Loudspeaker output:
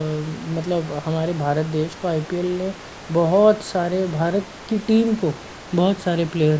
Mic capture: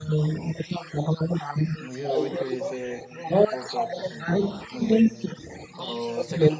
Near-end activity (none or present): present